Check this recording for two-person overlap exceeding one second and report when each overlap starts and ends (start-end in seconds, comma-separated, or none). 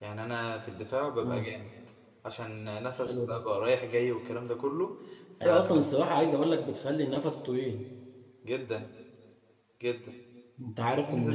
none